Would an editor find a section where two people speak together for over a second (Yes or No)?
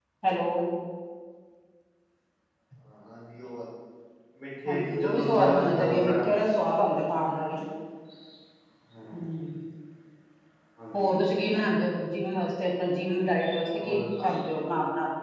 Yes